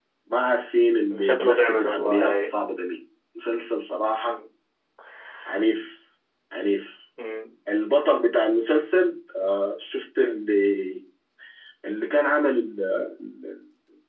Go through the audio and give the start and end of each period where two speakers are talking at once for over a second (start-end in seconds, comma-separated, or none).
1.2-2.5